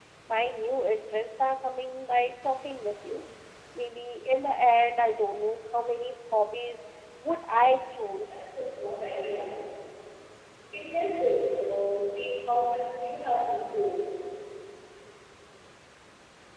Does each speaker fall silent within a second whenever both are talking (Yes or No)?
Yes